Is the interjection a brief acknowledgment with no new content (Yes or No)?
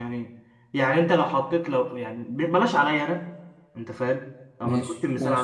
Yes